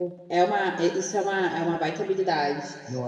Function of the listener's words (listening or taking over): listening